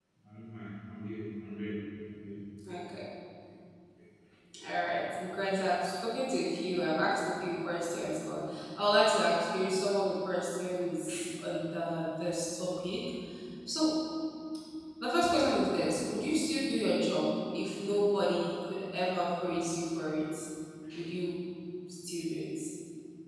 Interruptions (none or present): none